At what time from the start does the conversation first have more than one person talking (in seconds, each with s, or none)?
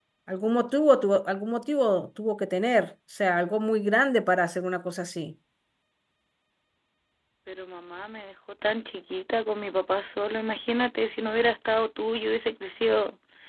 none